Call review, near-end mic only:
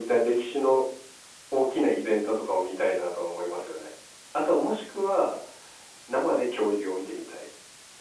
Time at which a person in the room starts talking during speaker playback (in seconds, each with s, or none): none